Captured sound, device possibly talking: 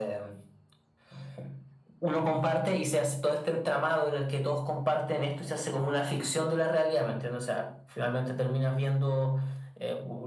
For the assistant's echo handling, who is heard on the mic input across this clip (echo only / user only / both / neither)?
echo only